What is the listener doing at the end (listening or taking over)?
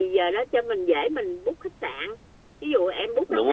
listening